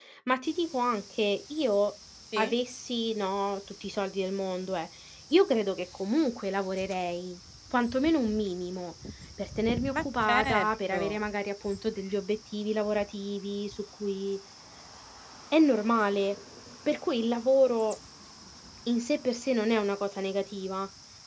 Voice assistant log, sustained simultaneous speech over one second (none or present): present